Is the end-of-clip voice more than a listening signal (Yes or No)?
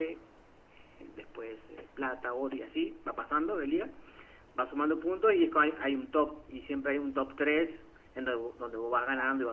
No